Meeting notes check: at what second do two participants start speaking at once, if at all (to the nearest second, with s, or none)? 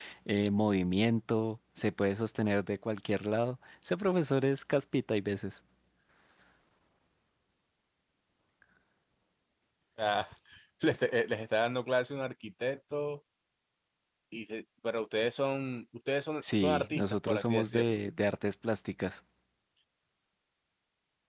16 s